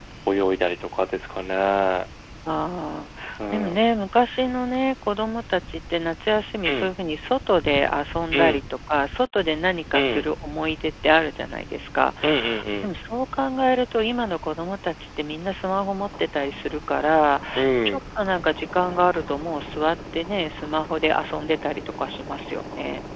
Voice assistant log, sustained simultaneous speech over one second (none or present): none